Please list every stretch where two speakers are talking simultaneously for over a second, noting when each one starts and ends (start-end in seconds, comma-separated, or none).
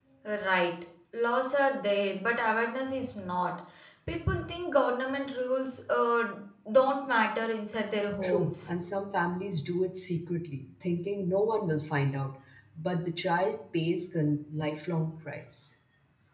none